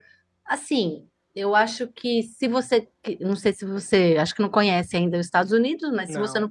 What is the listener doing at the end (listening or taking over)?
listening